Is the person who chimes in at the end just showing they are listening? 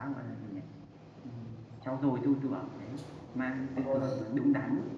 Yes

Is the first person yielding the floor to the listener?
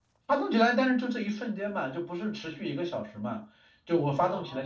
No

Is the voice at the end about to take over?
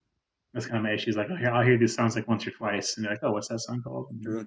Yes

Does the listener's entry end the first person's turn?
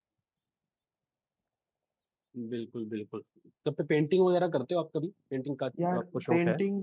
Yes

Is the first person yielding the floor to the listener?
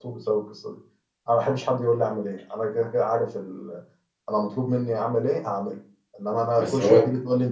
No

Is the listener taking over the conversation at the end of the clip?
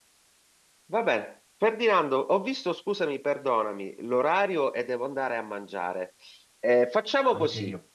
No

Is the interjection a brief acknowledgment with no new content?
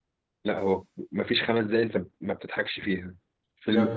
Yes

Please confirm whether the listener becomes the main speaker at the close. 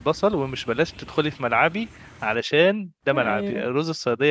No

